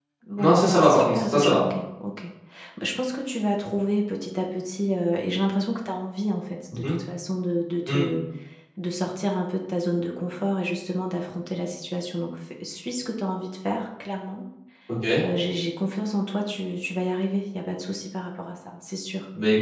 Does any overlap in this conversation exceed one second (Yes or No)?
Yes